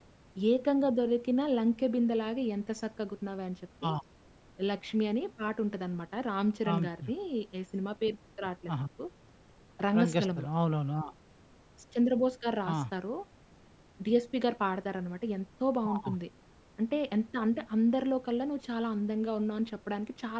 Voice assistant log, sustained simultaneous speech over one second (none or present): none